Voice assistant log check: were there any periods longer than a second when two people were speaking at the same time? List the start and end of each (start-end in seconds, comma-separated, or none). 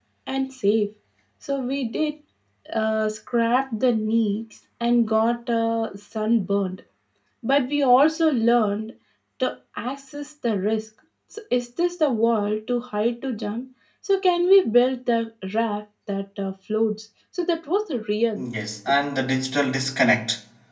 none